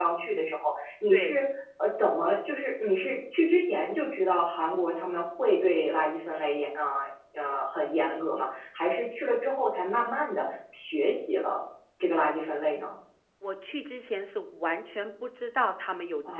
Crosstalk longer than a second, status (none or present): none